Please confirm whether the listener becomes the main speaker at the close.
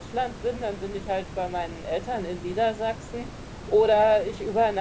No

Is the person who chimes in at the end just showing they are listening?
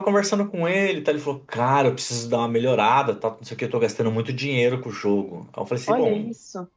Yes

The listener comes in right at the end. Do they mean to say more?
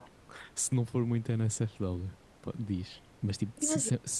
No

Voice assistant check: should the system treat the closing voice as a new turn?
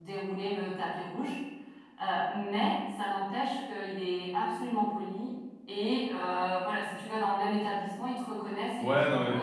Yes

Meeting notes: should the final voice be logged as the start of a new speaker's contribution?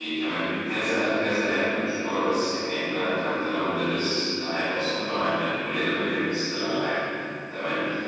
No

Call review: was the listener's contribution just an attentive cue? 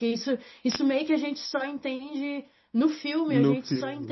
Yes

